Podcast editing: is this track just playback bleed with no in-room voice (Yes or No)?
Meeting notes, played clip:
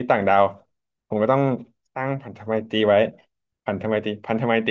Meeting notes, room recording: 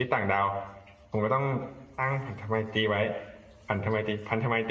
Yes